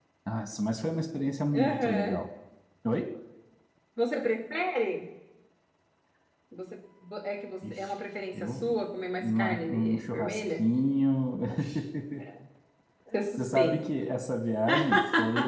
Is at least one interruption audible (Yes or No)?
Yes